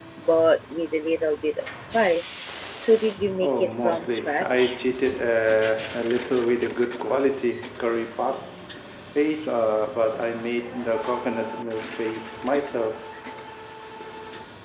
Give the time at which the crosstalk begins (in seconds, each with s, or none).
3.4 s